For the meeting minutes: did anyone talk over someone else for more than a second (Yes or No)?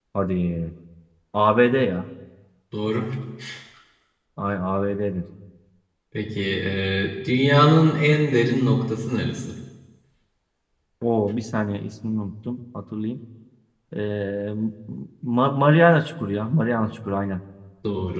No